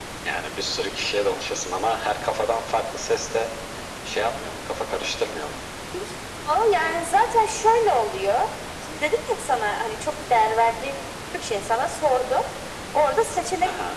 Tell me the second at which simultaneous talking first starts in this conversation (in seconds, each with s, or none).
none